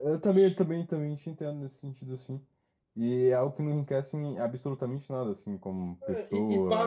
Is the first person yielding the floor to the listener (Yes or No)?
Yes